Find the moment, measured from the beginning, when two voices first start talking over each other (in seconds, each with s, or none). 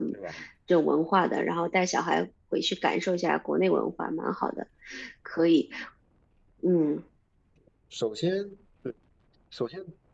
none